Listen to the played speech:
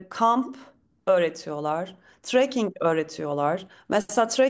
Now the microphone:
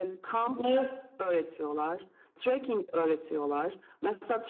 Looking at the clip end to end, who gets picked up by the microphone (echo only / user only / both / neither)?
both